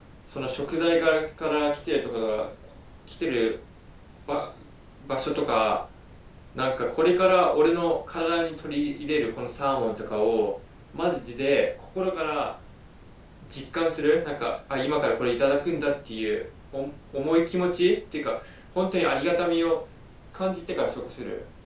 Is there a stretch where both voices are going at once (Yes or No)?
No